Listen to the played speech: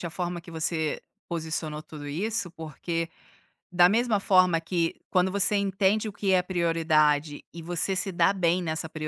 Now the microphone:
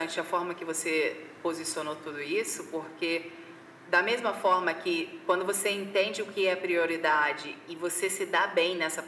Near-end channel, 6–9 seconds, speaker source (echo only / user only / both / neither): echo only